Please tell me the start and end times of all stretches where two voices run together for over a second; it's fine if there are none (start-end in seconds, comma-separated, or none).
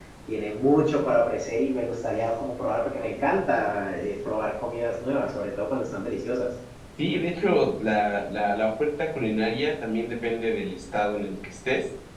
none